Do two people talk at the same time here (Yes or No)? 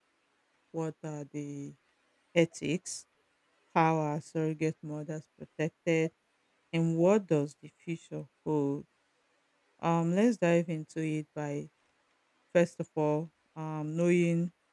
No